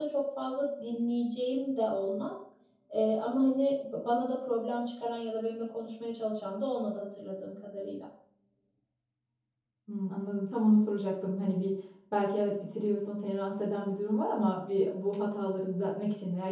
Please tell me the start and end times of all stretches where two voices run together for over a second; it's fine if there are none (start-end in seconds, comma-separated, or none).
none